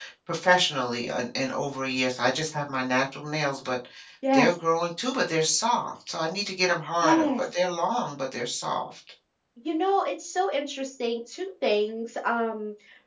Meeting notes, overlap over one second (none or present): none